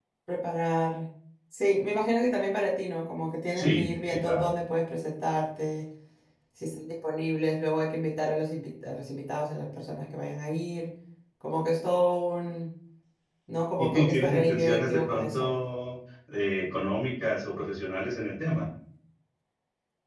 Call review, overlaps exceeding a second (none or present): present